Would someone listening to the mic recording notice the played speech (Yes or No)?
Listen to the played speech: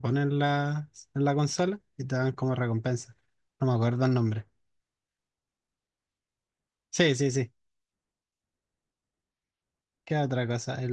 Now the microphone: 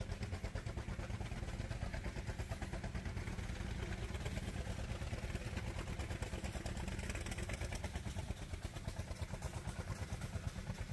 No